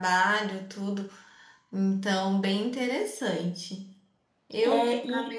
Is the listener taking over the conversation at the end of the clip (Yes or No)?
Yes